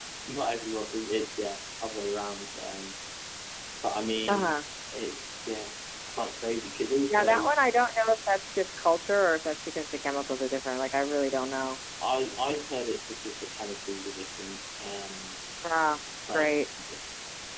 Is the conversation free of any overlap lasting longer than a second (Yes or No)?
Yes